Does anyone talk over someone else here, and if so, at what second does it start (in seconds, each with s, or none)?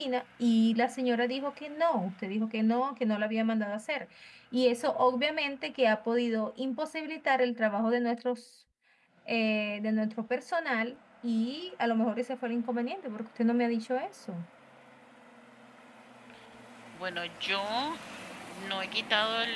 none